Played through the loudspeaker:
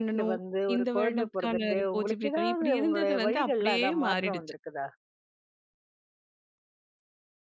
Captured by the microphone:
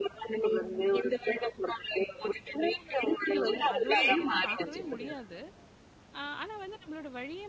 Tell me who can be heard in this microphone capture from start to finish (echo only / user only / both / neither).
both